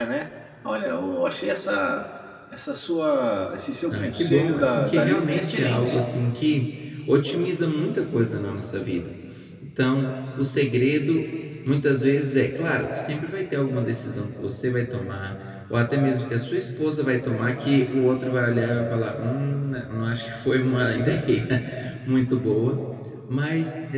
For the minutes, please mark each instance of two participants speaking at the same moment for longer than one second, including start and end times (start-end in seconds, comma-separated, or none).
3.9-6.0